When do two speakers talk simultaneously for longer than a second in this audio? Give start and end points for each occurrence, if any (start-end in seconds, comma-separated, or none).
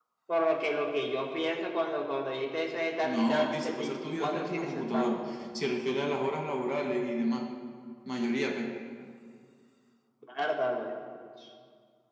3.0-5.2